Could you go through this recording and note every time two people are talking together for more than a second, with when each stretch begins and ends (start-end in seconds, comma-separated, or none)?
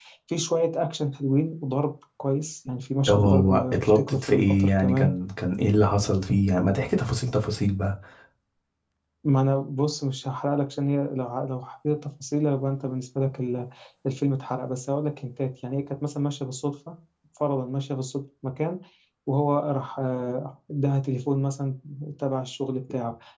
3.1-5.1